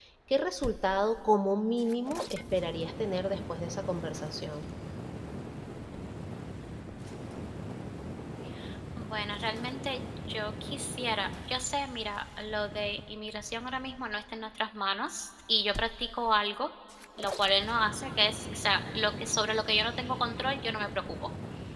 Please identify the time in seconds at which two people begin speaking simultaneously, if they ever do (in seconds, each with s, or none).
none